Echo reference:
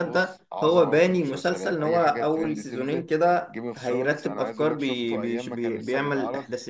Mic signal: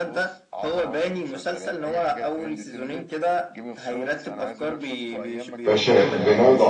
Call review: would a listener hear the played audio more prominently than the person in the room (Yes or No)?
No